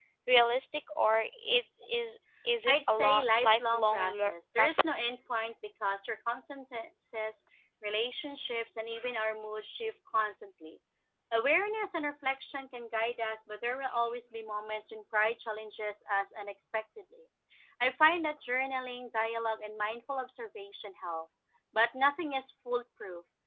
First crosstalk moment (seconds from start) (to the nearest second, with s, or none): 3 s